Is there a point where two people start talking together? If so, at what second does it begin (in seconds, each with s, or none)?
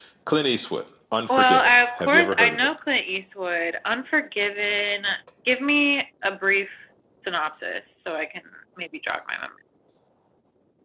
1.3 s